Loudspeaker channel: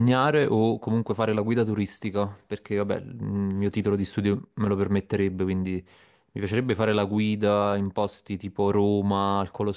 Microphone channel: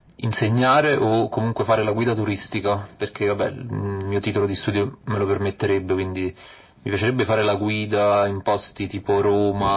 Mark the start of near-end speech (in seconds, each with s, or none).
none